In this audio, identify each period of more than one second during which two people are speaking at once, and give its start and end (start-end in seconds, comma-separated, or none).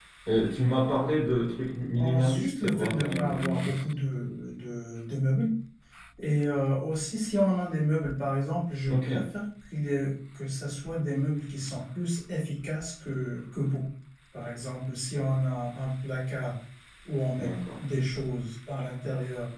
2.0-3.8